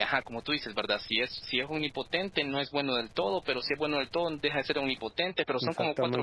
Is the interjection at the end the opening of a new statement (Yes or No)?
Yes